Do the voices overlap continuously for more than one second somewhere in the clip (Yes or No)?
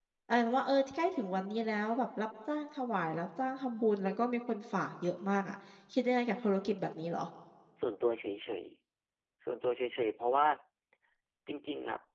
No